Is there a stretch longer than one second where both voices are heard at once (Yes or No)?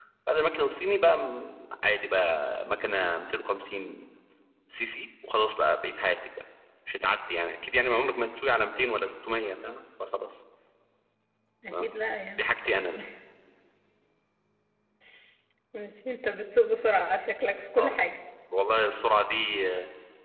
No